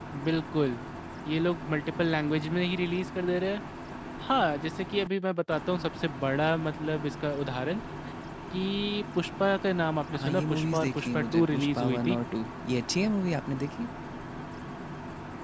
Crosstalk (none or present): present